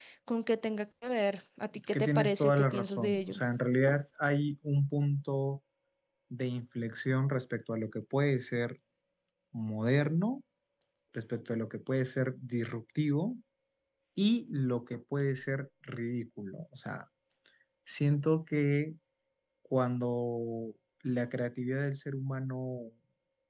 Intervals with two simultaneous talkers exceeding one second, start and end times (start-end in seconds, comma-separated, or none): 1.9-3.4